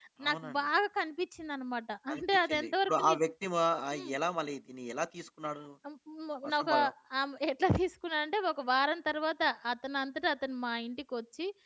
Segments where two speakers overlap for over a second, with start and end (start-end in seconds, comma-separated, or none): 2.1-3.3